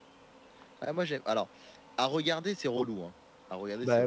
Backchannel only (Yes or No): No